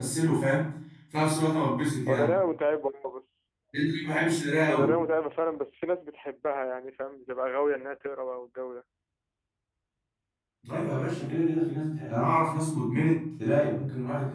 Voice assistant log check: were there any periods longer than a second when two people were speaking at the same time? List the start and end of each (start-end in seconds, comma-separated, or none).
none